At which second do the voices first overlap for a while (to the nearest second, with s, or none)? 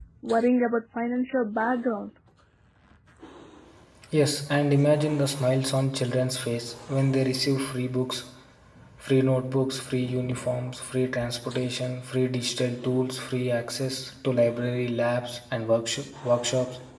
none